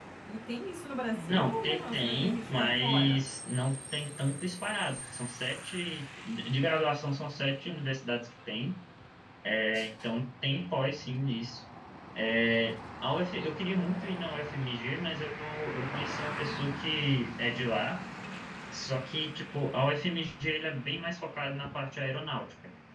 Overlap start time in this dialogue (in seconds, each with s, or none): 1.3 s